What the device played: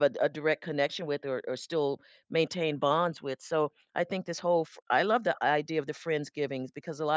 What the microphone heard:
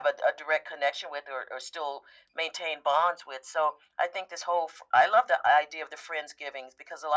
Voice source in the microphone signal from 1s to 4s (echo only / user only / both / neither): echo only